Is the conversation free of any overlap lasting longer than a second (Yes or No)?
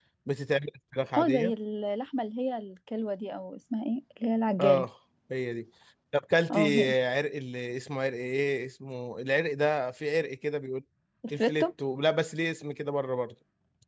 Yes